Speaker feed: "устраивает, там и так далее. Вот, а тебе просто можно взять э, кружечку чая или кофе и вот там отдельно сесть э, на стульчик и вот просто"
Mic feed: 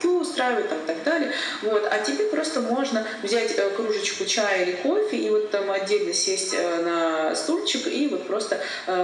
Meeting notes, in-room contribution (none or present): none